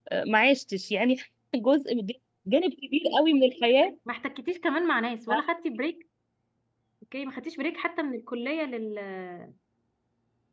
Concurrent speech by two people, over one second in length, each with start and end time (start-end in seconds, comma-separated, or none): none